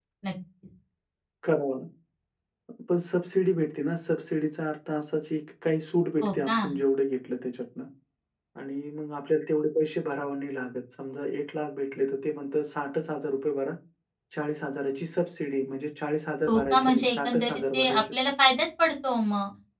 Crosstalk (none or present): present